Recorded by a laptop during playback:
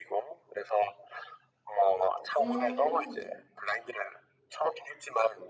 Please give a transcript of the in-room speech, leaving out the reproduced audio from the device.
네.

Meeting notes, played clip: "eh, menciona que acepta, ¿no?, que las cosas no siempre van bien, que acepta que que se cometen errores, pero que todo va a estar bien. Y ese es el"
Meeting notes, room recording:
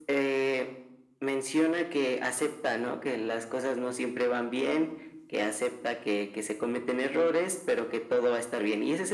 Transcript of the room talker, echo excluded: none

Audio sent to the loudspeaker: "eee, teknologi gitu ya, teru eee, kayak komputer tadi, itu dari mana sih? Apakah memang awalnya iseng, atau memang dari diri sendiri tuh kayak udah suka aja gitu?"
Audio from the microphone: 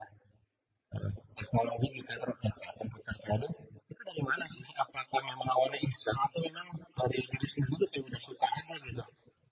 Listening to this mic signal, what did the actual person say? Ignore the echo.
none

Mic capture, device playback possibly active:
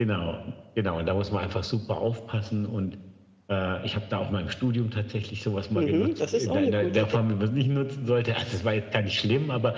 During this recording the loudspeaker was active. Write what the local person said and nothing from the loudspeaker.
Mhm, das ist auch 'ne gute Idee.

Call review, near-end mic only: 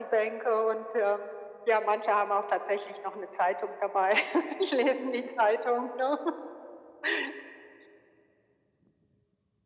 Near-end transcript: none

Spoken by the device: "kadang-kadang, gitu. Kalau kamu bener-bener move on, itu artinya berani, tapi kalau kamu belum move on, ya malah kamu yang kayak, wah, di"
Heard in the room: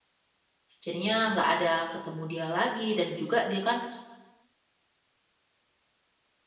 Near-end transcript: jadinya nggak ada ketemu dia lagi dan juga dia kan

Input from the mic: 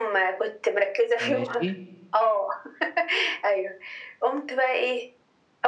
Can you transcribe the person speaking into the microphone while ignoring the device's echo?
ماشي.

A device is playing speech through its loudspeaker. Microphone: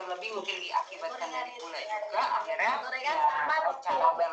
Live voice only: none

